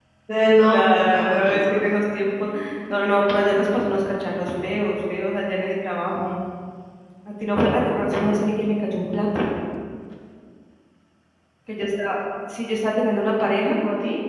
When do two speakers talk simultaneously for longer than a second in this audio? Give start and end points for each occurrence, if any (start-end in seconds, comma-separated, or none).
0.6-1.8